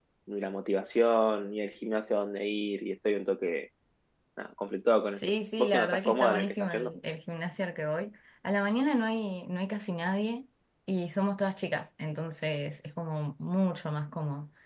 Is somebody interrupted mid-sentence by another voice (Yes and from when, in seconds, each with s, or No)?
Yes, from 5.2 s